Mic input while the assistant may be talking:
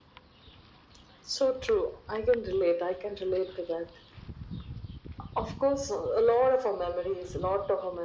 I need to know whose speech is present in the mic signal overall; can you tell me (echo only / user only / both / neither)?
echo only